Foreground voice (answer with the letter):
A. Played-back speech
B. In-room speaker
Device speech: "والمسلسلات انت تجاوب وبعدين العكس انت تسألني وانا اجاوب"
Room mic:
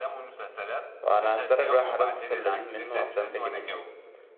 B